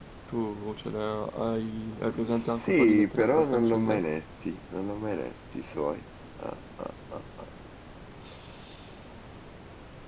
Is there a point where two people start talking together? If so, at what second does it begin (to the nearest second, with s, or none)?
2 s